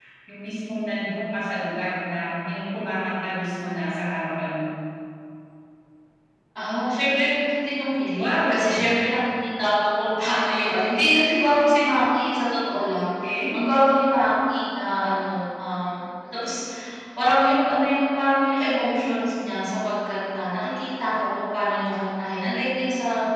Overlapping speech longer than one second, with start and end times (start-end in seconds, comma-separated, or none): none